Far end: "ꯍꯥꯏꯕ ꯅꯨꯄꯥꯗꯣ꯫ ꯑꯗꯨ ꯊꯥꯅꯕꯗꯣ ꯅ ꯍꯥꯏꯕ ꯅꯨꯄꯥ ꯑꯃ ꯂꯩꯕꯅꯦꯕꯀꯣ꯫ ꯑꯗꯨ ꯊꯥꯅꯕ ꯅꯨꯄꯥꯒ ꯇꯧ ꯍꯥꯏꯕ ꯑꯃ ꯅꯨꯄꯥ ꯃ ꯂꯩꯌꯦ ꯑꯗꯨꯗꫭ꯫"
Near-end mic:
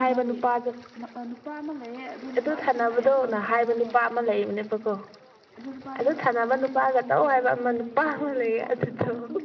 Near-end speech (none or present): present